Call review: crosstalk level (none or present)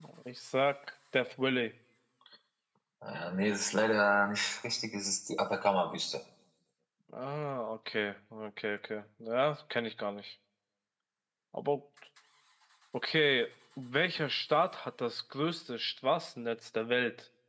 none